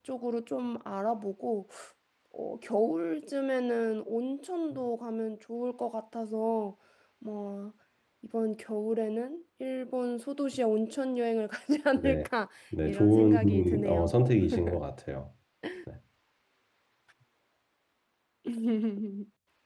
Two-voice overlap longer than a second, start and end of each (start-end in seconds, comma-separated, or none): 12.8-14.1